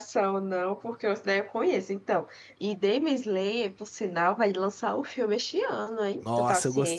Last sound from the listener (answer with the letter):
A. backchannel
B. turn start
B